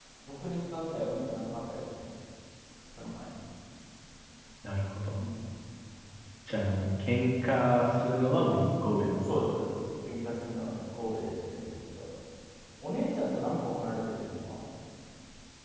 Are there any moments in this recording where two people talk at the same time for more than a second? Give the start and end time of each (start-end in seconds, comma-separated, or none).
none